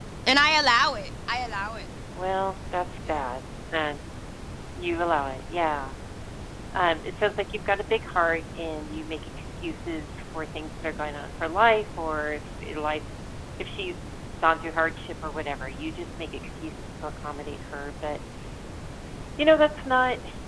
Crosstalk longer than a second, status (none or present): none